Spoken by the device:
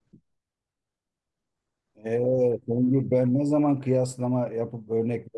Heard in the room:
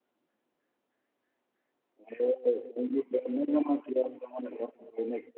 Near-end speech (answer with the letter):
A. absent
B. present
A